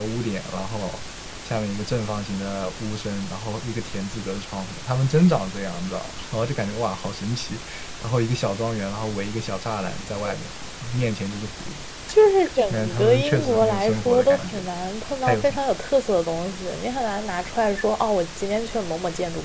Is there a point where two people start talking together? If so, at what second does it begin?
12.7 s

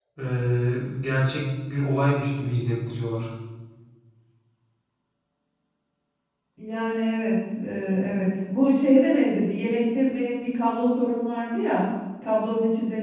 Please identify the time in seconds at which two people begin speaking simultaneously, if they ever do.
none

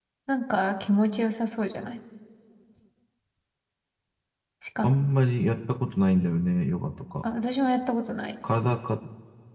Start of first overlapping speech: none

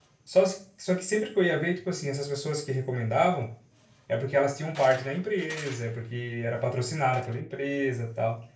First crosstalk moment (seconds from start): none

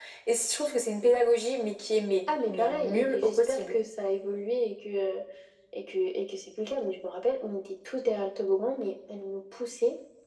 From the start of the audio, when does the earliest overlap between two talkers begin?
2.3 s

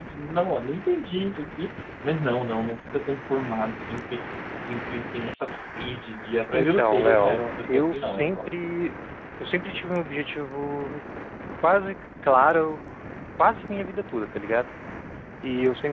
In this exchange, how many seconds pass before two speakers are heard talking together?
6.5 s

